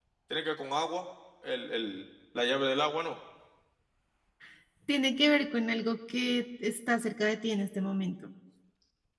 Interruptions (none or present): none